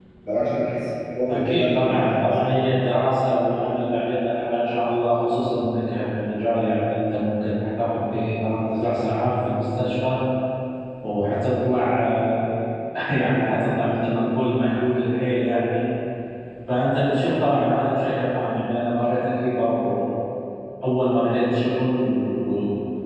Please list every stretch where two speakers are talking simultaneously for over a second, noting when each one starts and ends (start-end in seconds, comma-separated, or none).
1.3-2.6